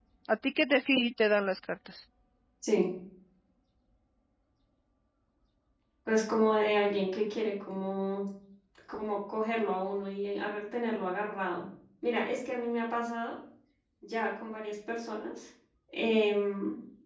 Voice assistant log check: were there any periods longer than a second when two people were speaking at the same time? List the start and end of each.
none

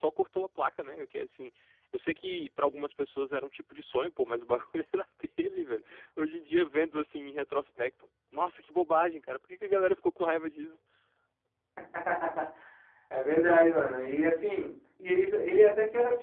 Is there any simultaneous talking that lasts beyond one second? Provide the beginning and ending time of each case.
none

